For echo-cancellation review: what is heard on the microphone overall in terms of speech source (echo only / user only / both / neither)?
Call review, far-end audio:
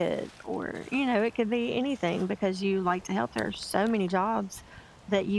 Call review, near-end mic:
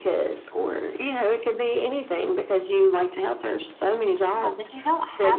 both